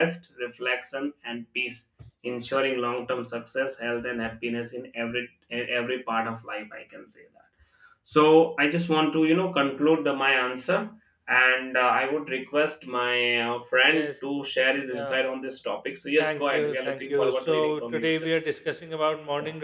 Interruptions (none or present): present